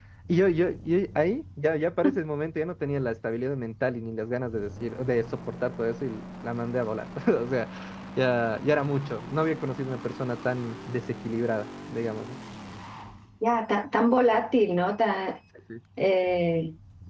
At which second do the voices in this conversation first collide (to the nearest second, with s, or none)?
none